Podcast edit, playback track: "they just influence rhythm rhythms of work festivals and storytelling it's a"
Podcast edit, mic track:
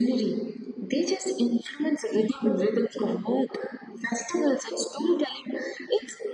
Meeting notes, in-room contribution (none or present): none